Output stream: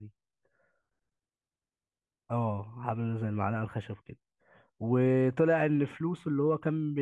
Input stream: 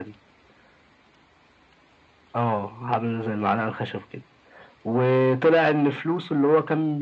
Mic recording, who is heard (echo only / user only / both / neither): echo only